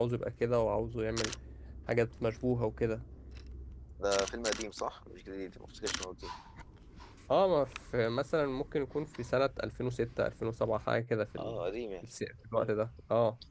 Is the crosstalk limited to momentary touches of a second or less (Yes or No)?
Yes